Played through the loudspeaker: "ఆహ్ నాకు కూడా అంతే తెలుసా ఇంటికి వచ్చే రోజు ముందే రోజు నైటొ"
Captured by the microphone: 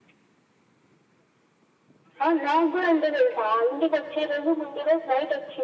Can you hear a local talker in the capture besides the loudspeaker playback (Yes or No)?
No